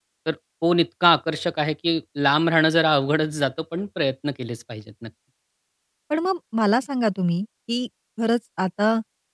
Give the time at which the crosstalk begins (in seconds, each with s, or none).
none